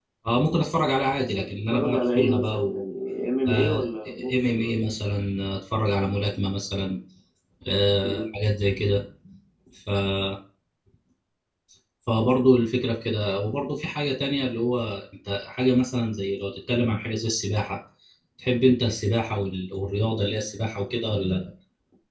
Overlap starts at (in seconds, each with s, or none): 1.3 s